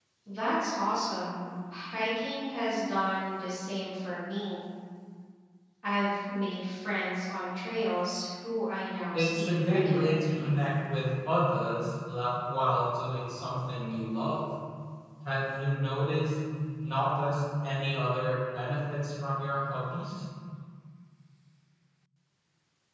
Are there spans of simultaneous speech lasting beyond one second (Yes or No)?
Yes